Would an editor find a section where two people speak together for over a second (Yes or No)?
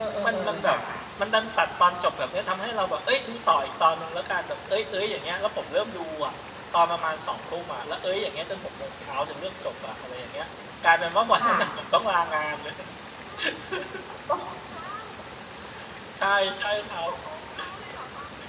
No